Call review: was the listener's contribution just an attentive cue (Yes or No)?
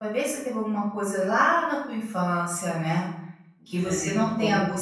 Yes